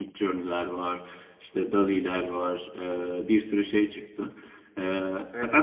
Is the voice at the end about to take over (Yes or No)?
No